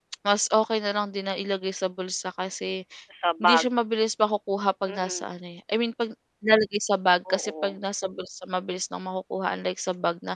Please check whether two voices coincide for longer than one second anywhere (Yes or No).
No